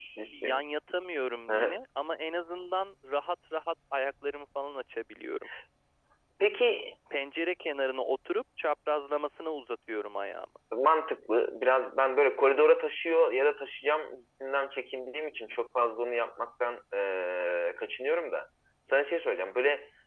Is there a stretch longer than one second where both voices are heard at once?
No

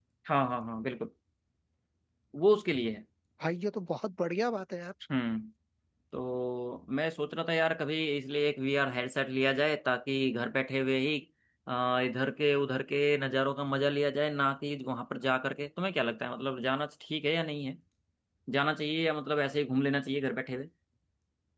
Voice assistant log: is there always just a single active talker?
Yes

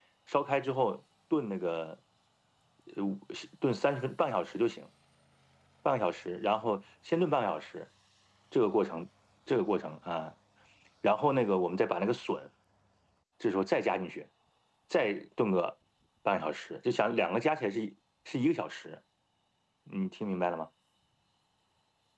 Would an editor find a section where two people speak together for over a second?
No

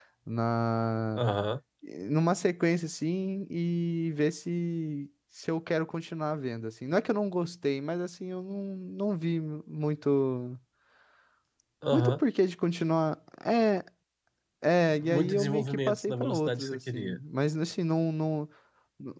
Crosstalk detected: Yes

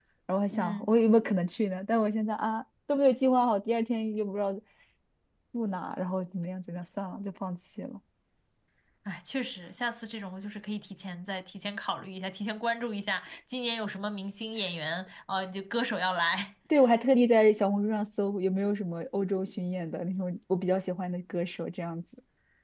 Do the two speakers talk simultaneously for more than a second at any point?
No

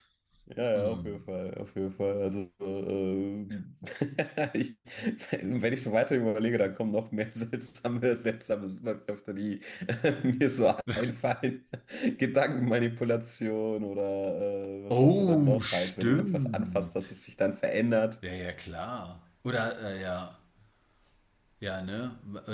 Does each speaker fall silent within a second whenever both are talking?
No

